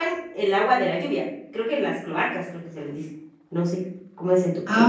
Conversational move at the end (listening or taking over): taking over